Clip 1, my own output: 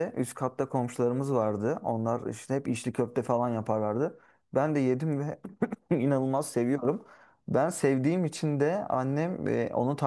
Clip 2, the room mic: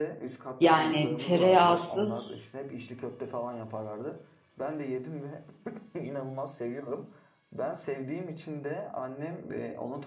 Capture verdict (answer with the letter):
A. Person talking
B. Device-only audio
A